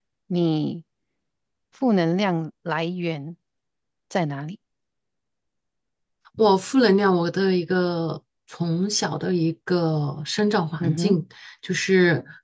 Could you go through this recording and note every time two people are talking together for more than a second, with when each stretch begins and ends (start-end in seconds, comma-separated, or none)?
none